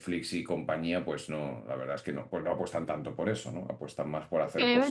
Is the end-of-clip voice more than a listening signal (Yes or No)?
Yes